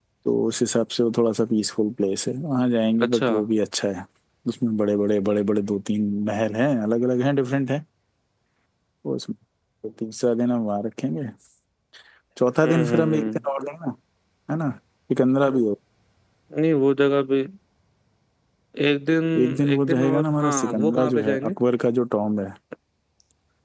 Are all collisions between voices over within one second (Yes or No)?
No